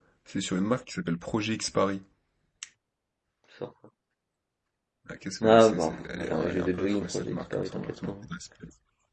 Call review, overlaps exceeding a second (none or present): present